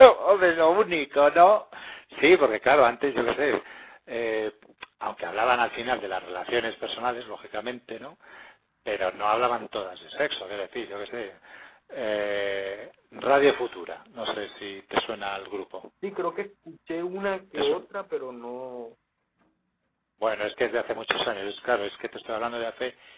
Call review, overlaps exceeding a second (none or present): none